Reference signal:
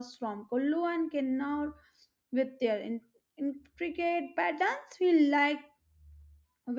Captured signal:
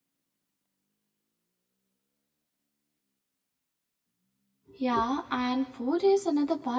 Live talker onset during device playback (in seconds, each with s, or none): 4.7 s